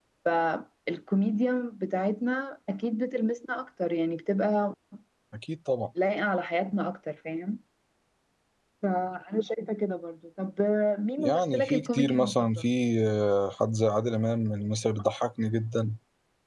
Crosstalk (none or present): present